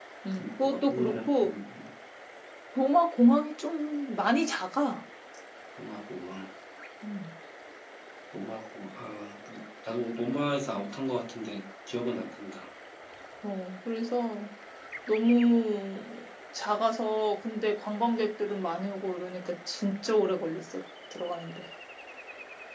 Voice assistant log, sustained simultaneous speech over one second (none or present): present